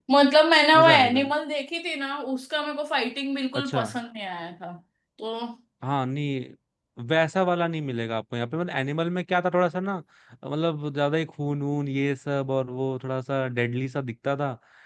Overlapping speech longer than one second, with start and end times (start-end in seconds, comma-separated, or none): none